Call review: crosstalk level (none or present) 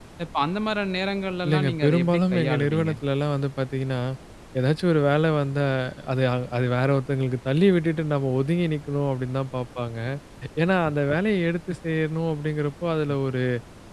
present